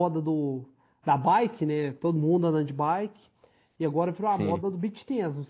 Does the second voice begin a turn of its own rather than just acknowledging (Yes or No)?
No